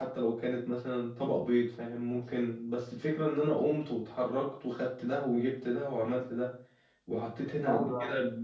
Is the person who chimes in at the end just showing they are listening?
Yes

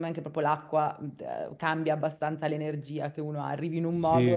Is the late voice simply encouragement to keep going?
No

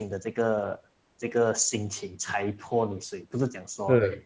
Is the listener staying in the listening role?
Yes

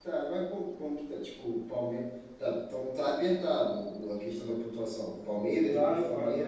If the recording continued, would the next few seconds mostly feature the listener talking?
Yes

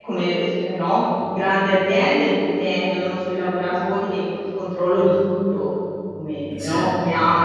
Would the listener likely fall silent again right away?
Yes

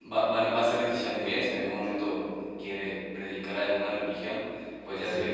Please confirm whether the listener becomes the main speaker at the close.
No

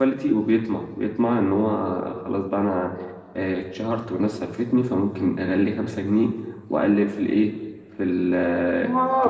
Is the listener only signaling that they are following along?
No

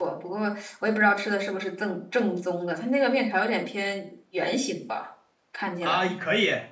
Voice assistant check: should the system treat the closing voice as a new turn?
Yes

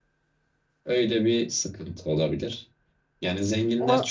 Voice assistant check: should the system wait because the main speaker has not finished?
Yes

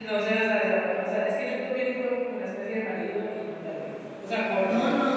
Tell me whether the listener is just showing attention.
No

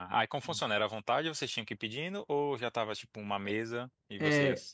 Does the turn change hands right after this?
Yes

